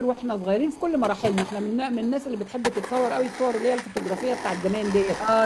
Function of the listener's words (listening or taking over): taking over